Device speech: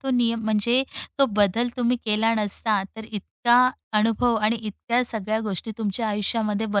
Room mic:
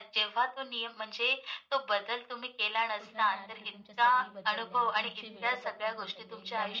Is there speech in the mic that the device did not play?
Yes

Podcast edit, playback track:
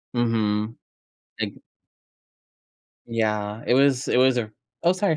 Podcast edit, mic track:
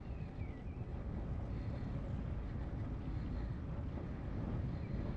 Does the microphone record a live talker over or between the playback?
No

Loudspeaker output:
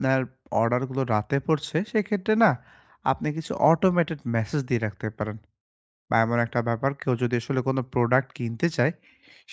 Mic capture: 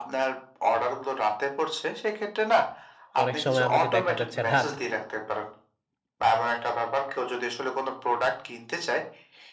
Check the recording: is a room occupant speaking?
Yes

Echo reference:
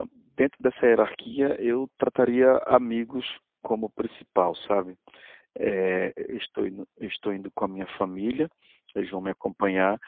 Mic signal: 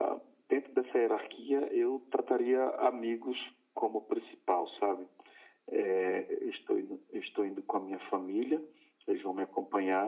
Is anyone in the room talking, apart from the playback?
No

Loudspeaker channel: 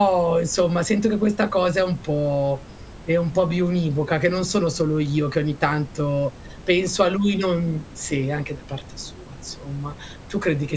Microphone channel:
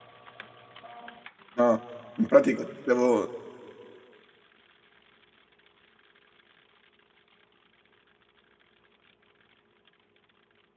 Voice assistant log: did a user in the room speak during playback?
Yes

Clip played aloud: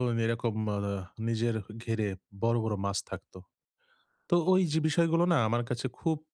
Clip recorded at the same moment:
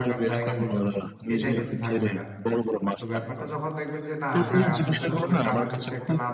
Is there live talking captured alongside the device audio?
Yes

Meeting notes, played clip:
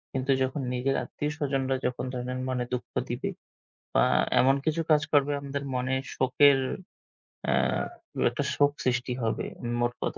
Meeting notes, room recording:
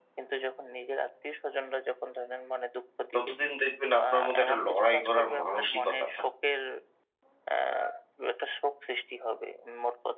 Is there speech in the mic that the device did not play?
Yes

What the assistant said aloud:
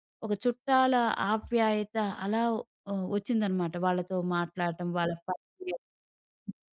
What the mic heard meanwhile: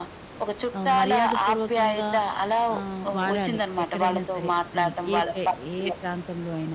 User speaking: Yes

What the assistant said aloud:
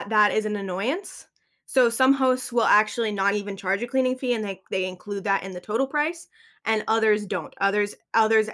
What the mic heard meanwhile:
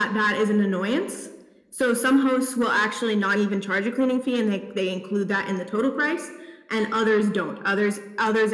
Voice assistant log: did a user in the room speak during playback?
No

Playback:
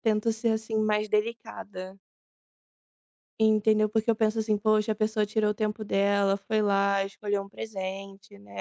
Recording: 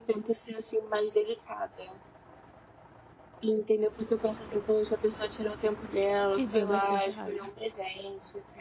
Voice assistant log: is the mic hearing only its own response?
No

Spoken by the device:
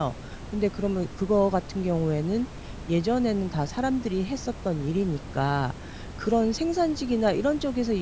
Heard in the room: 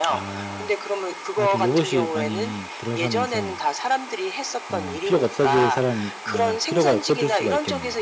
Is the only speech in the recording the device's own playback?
No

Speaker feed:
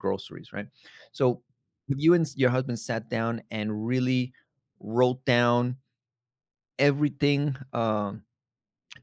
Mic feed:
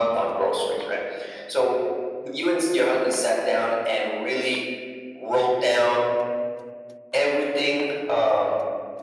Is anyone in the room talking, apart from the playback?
No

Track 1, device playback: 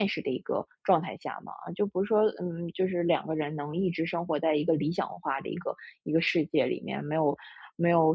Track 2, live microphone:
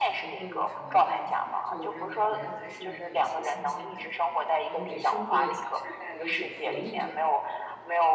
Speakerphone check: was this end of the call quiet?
No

